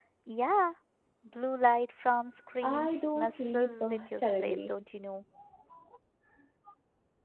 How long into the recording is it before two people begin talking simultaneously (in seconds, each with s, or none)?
2.6 s